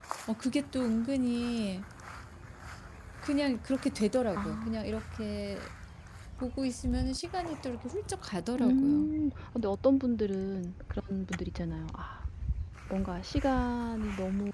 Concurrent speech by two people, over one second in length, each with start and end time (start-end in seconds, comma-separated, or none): none